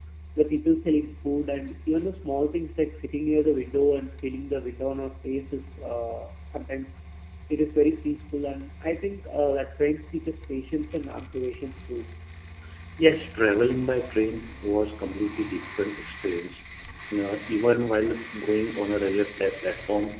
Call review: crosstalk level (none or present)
none